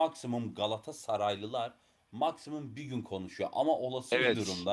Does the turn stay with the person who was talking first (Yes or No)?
Yes